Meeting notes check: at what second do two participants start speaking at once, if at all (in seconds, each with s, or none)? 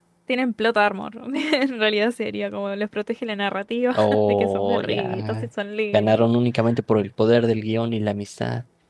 3.9 s